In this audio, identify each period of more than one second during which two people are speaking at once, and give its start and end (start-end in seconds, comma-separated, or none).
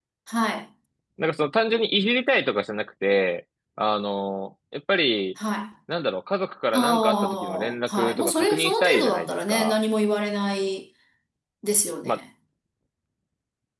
6.7-9.8